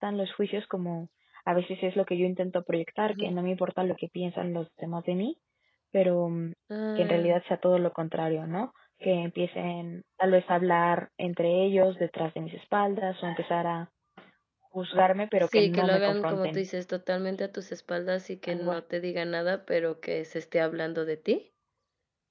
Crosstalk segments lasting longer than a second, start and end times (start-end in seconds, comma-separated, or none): 15.4-16.6